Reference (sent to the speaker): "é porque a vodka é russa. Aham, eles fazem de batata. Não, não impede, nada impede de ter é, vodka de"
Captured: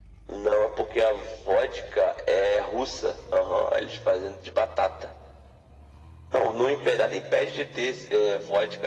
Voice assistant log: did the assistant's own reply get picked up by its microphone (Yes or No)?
Yes